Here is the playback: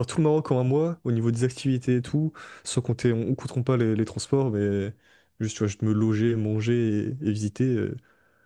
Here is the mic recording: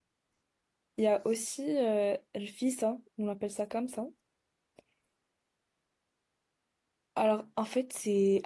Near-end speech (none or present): present